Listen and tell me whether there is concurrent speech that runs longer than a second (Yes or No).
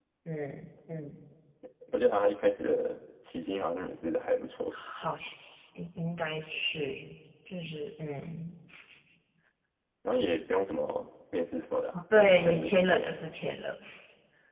Yes